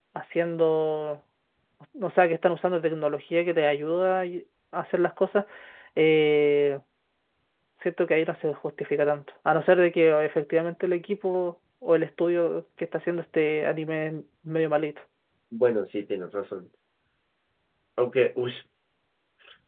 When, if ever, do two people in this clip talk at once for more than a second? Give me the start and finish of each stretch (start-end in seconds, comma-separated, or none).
none